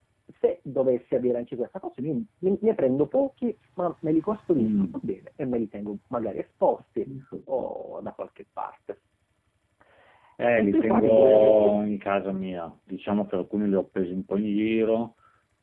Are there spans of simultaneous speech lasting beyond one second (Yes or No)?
Yes